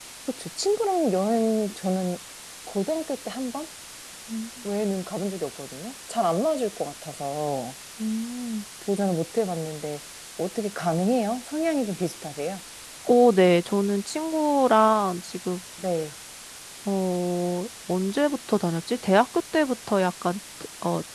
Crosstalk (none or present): none